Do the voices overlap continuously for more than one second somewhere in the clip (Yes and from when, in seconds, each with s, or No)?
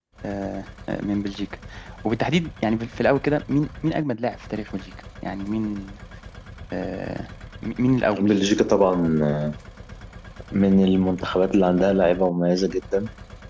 No